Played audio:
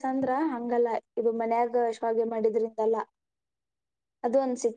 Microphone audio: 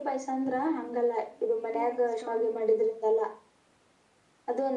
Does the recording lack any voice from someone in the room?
No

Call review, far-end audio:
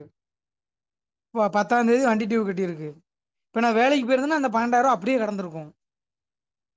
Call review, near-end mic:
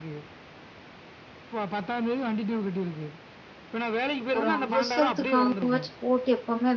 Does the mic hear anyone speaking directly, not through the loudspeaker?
Yes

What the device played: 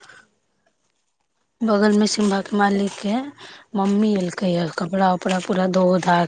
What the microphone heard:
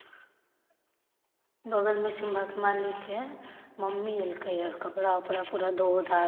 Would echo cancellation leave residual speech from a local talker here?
No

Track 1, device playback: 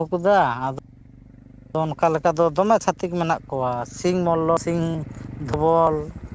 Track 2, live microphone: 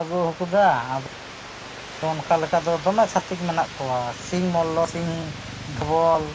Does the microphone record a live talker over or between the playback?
No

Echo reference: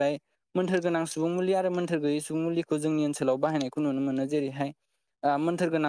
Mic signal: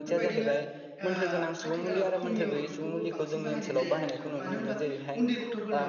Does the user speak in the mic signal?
Yes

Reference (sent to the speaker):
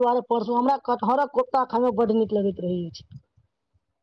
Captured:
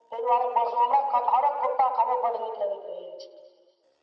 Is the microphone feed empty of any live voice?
Yes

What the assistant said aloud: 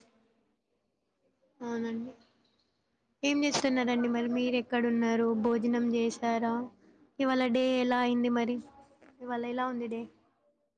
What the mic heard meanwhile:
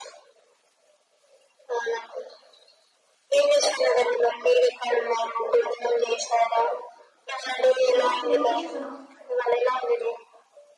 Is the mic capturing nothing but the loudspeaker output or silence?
No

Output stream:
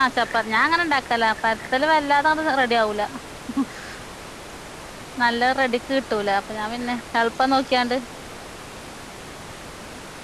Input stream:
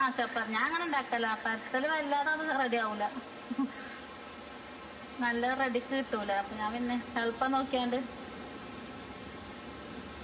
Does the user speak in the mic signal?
No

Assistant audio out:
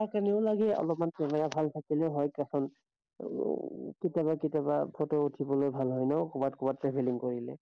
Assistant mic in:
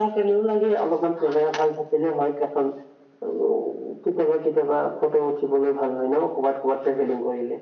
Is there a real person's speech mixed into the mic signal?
No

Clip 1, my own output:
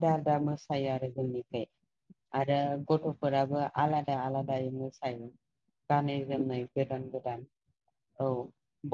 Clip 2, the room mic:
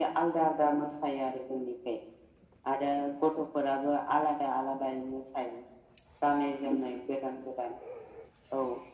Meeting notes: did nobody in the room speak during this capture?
Yes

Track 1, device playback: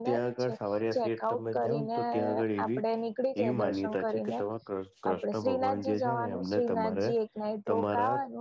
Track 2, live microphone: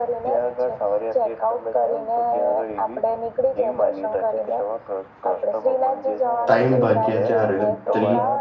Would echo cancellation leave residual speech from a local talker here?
Yes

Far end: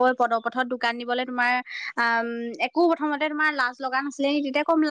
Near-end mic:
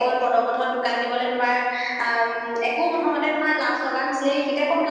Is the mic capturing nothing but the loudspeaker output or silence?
Yes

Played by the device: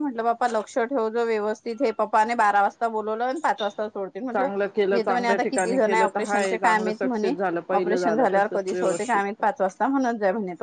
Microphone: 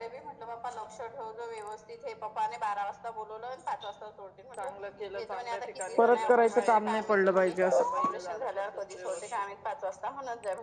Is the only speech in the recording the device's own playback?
No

